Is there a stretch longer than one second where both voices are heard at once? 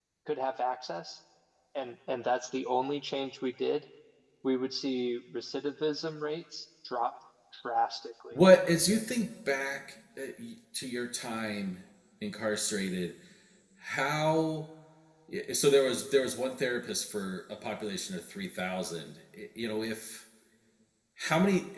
No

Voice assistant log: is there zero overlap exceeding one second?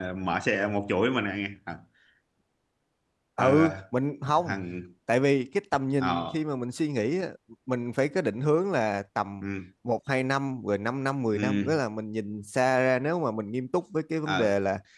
Yes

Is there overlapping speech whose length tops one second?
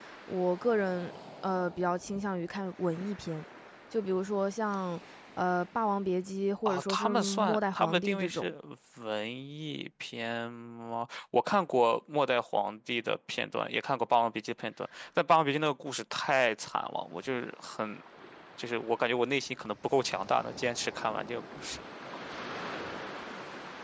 Yes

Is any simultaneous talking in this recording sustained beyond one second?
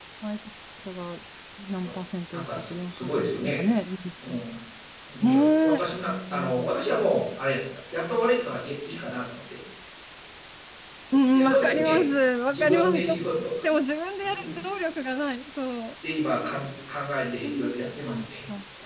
Yes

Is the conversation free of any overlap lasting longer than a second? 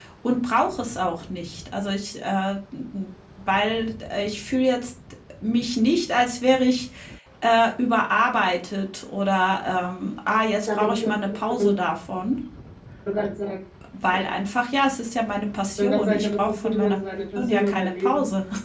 No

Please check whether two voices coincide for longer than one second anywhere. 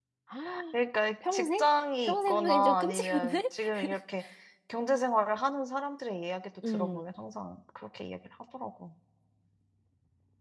Yes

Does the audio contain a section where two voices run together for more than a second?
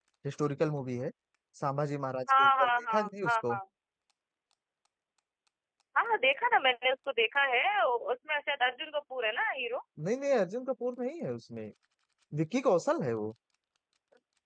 Yes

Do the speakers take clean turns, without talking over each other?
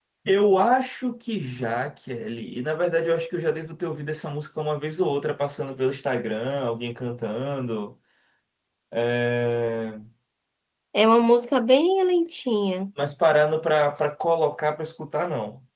Yes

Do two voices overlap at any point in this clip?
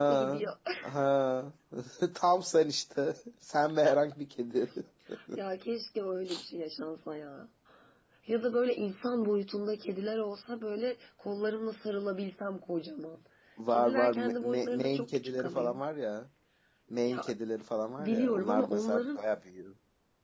Yes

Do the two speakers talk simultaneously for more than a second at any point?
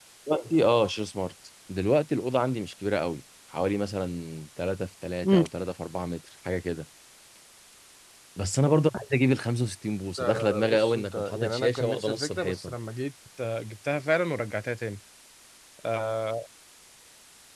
Yes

